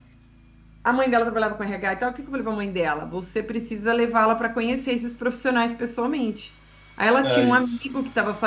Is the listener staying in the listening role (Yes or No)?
Yes